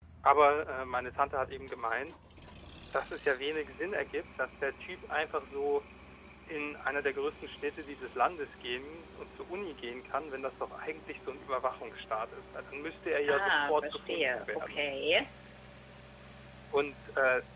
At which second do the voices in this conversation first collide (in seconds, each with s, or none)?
13.2 s